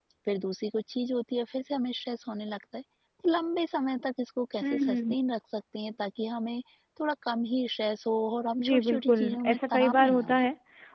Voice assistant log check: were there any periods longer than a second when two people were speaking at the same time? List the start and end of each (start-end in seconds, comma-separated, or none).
8.6-10.4